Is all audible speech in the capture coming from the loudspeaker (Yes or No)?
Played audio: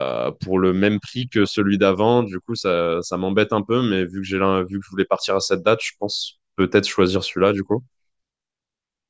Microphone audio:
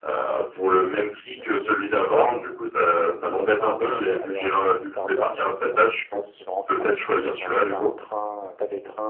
No